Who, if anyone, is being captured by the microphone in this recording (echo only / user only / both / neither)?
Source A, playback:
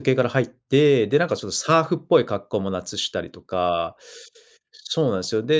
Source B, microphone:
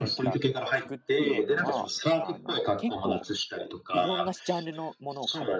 both